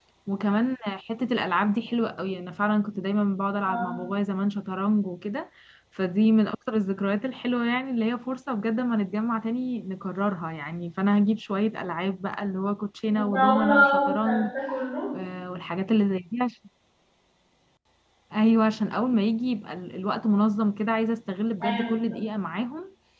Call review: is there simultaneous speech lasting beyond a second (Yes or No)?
Yes